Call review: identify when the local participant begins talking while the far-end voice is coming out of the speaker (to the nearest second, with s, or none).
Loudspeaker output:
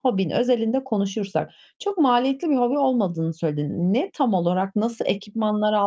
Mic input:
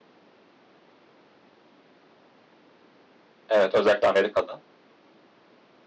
3 s